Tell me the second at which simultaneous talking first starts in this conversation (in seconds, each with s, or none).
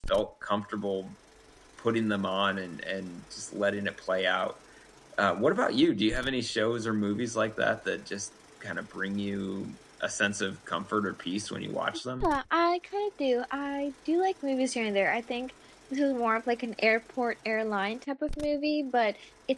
none